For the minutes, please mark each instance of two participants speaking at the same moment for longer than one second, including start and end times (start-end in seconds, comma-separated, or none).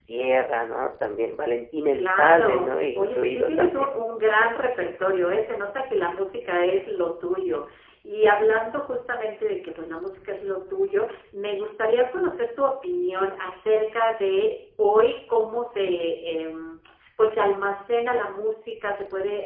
1.9-3.9